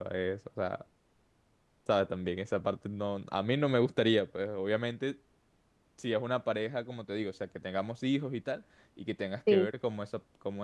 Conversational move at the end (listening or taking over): listening